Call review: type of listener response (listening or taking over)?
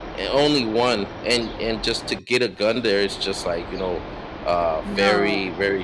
listening